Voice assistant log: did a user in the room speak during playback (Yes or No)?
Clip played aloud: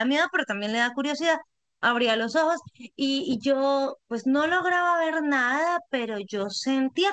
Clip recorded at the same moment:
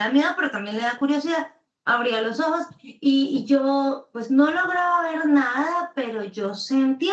No